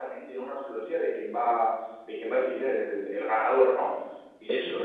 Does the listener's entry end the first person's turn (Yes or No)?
No